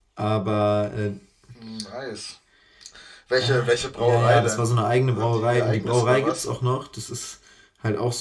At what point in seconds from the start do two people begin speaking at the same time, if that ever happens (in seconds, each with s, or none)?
3.4 s